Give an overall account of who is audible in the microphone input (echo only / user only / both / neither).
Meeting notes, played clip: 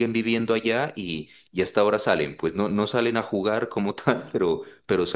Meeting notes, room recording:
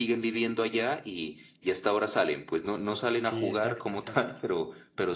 both